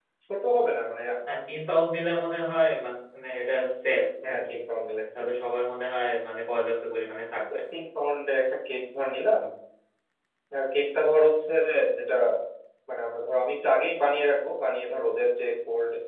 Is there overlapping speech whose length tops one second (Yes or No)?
No